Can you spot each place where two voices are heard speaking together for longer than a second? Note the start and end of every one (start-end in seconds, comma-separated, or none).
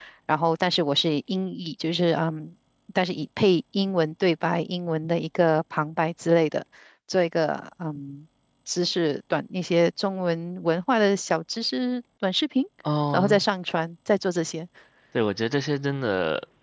none